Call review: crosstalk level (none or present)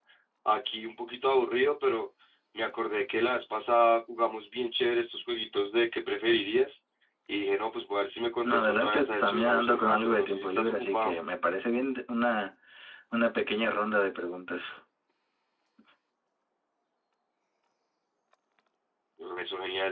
present